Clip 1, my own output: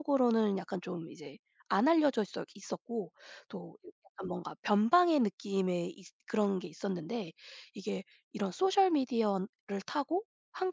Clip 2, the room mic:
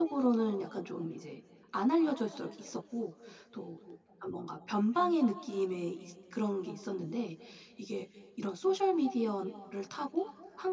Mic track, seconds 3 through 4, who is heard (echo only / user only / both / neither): echo only